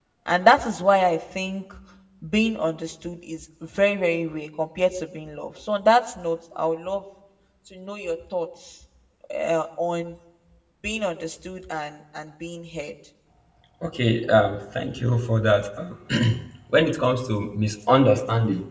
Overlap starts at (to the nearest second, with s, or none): none